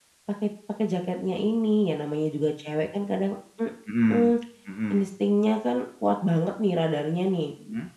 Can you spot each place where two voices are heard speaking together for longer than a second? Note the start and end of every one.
none

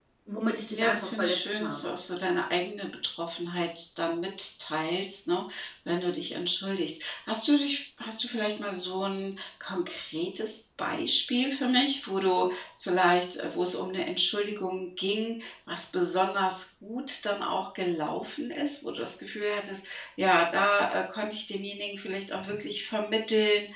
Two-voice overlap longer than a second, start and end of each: 0.7-1.9

